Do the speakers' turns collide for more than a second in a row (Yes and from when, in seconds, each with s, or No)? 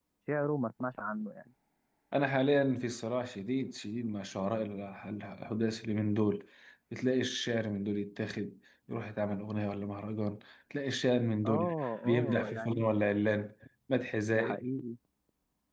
Yes, from 11.4 s